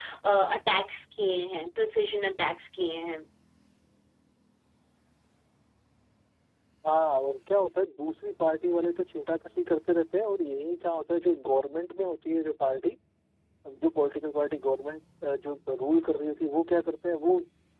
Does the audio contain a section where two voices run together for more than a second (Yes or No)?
No